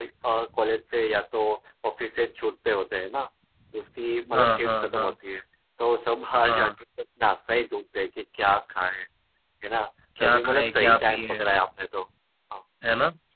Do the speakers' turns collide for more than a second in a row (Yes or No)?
Yes